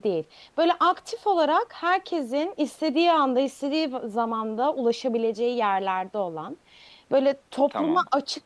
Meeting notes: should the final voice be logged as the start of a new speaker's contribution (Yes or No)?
No